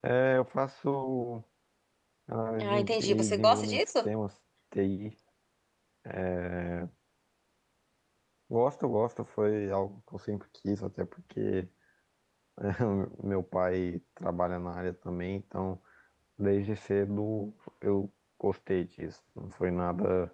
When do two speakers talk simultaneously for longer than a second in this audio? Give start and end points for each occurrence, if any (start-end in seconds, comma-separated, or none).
2.6-4.1